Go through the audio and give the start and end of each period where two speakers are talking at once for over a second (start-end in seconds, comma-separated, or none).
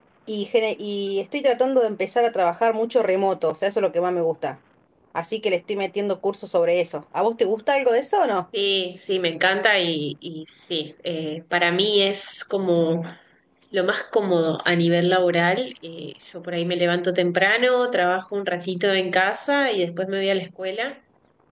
none